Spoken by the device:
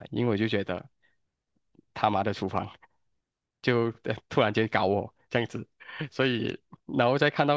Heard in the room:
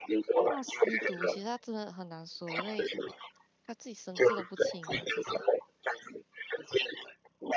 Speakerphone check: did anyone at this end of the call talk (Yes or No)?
Yes